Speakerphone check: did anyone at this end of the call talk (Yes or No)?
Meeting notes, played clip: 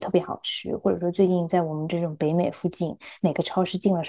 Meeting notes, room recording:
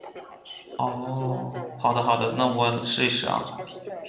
Yes